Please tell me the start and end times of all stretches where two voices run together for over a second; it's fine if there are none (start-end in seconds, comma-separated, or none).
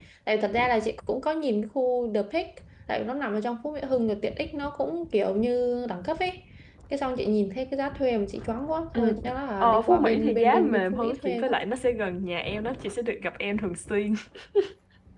9.6-11.6